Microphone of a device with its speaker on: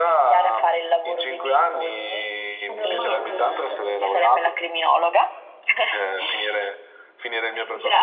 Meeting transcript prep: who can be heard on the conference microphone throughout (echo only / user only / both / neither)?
both